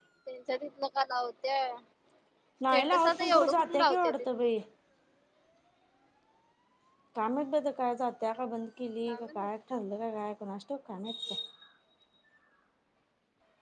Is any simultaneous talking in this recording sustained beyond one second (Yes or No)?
Yes